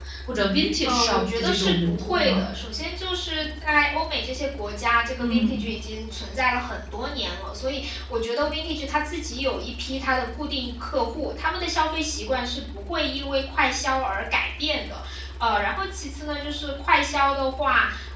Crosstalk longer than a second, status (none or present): present